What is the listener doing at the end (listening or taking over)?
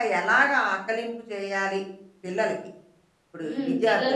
taking over